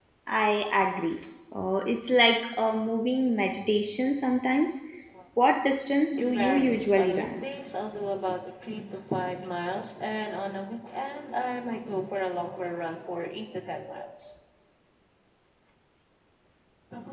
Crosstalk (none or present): present